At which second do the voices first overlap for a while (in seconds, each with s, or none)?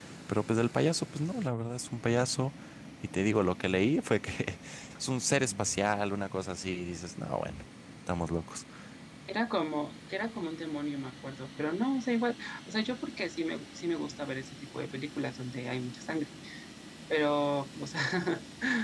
none